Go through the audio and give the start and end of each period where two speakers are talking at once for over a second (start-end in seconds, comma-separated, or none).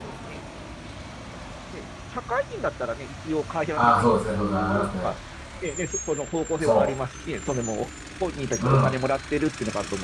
3.8-5.1